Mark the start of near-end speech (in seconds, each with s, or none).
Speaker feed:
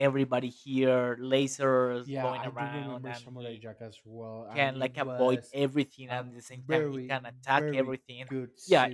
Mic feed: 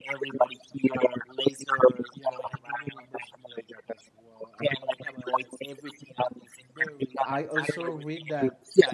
7.2 s